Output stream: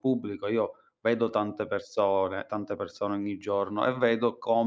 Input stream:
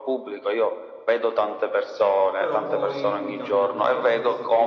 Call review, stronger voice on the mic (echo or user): echo